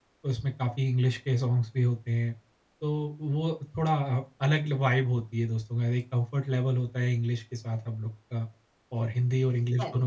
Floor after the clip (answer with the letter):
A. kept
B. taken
A